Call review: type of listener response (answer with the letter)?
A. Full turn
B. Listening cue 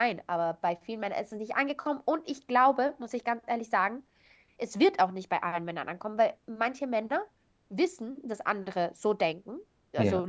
B